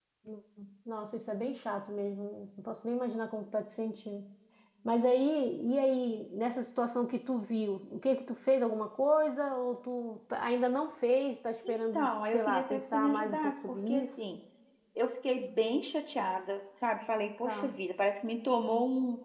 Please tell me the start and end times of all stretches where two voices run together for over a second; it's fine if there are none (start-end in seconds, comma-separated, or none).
11.7-14.1